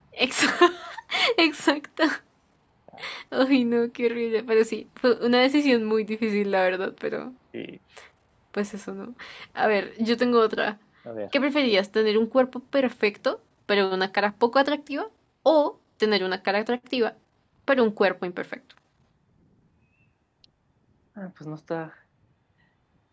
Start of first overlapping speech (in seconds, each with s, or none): none